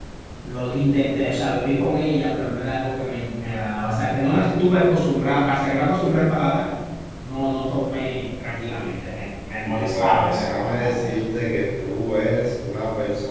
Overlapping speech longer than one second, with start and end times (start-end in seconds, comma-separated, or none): 9.6-11.1